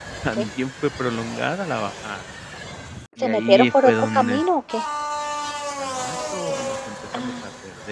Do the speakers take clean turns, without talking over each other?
No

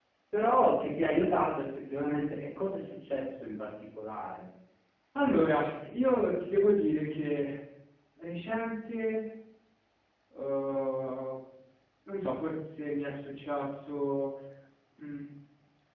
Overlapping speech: No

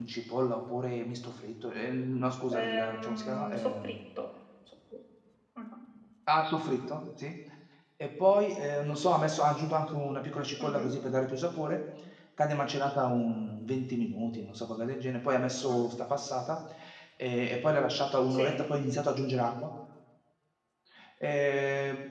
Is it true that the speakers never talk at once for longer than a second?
No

